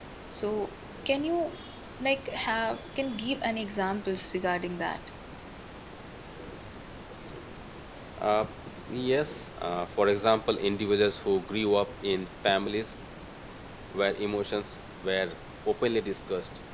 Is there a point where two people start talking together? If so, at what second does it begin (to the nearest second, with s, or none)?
none